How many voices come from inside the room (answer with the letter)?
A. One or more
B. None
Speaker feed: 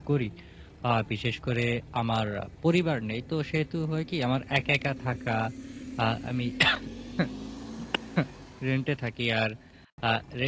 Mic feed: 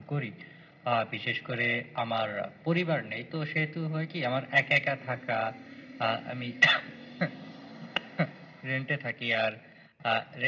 B